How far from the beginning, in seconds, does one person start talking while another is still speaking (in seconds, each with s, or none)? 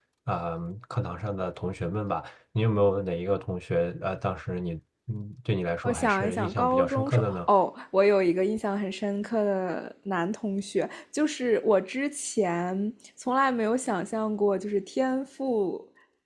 5.8 s